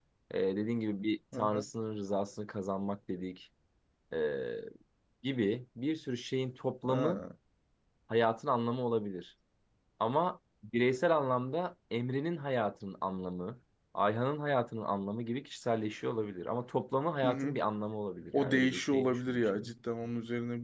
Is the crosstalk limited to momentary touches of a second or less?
No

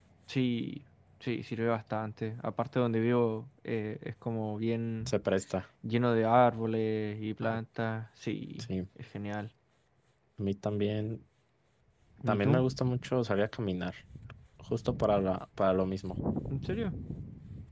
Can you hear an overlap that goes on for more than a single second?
No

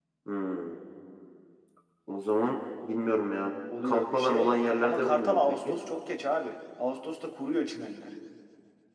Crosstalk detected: Yes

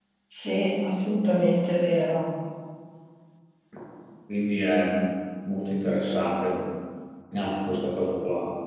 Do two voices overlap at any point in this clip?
No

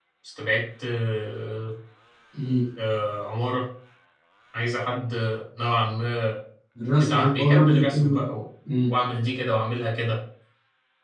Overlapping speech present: Yes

